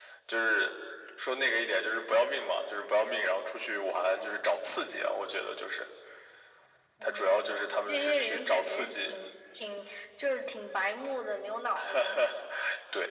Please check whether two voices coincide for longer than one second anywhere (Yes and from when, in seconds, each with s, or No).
Yes, from 7.0 s